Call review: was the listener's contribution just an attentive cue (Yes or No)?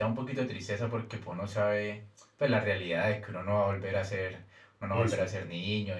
Yes